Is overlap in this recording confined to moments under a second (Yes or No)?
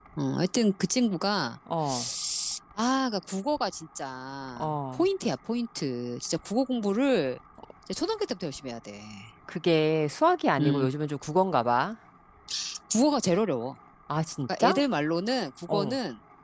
Yes